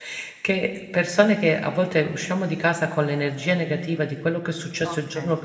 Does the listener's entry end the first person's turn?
No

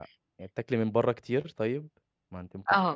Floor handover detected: Yes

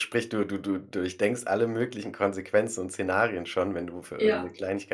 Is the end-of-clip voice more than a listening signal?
No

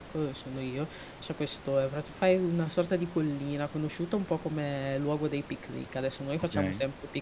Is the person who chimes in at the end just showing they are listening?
Yes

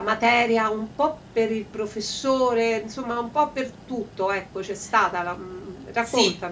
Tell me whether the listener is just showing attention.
No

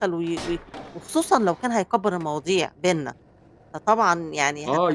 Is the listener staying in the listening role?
No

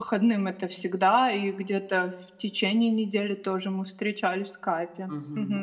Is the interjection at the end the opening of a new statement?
Yes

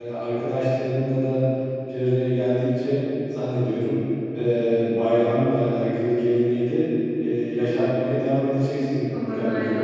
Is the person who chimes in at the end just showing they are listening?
No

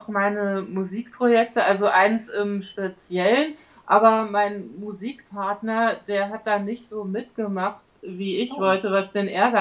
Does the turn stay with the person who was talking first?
Yes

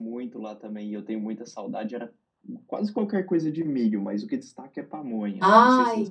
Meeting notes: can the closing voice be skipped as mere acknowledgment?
No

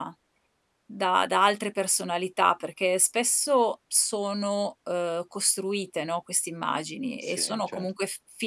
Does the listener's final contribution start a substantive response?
No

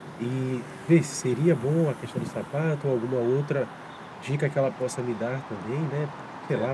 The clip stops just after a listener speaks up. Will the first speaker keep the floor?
No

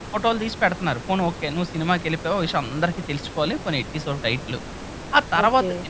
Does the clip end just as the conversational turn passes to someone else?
No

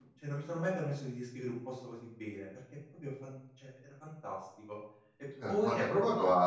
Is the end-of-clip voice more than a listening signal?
Yes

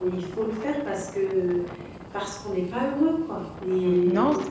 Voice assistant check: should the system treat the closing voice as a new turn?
Yes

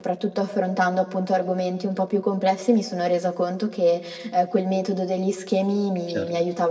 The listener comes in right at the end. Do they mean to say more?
No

